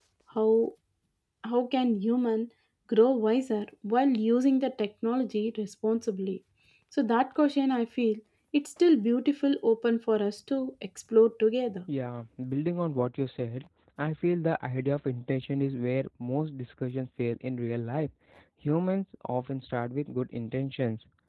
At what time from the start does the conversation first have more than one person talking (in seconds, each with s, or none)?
none